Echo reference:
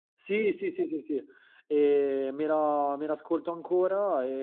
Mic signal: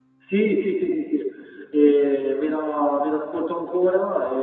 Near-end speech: none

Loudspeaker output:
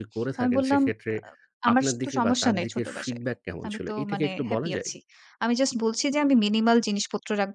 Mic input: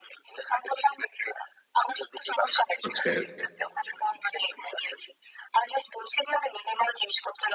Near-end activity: present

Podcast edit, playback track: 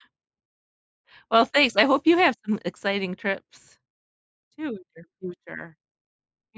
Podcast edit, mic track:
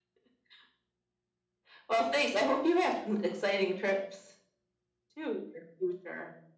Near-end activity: none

